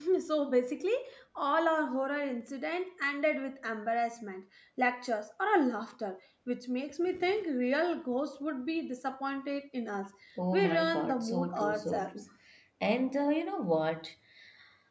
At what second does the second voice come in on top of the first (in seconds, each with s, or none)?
10.5 s